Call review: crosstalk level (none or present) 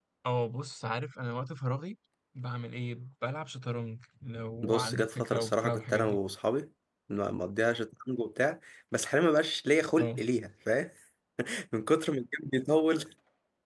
present